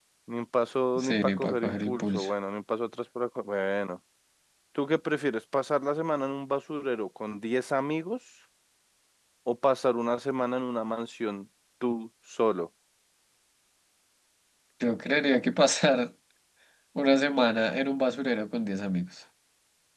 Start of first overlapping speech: 1.0 s

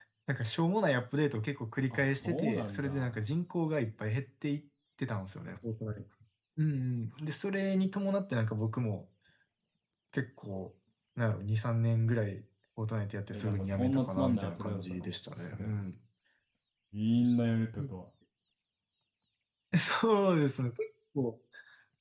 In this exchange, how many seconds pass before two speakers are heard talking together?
1.9 s

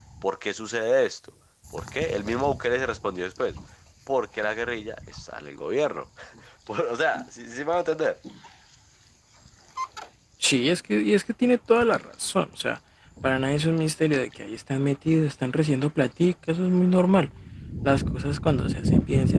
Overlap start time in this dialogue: none

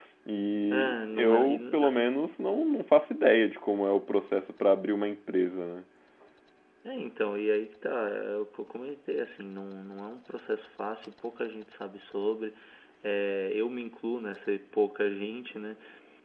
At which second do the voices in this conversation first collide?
0.7 s

